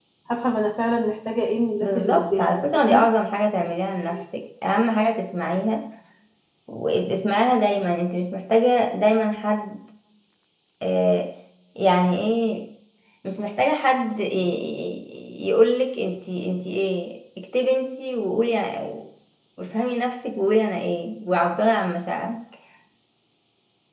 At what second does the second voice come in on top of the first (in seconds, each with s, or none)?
1.8 s